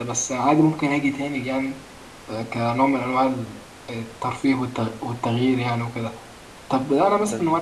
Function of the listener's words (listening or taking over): listening